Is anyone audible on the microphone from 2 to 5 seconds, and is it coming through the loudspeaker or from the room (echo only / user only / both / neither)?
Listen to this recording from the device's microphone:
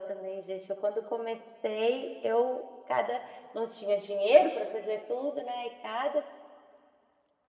echo only